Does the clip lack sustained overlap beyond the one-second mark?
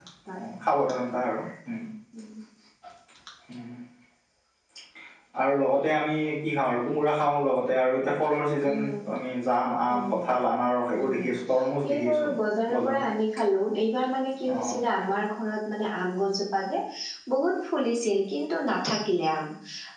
Yes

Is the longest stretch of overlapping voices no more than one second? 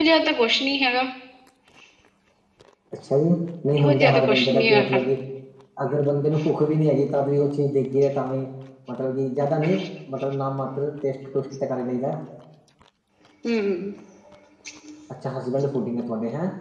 No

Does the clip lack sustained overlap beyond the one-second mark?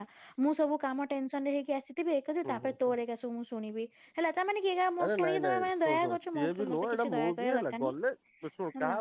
No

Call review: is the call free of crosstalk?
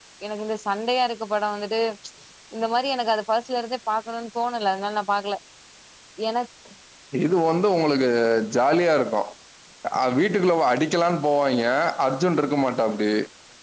Yes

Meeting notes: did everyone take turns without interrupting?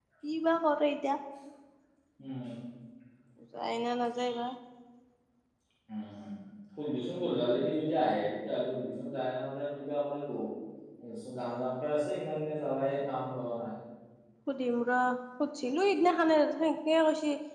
Yes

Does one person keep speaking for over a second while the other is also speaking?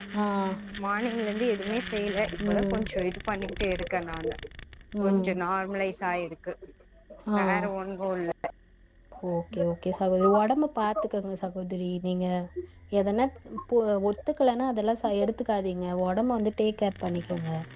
No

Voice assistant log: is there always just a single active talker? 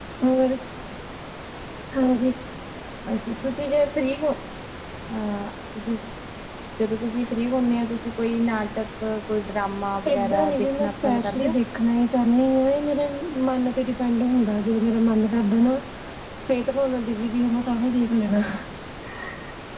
No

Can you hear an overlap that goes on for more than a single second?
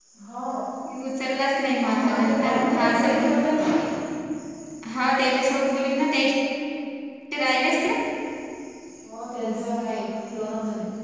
Yes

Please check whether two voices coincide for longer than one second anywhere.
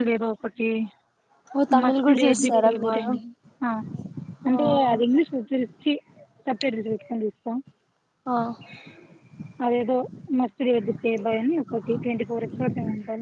Yes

